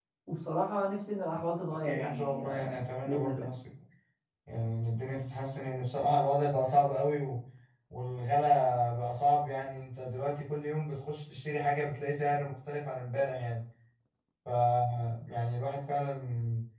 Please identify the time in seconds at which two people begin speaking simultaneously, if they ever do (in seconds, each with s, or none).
1.8 s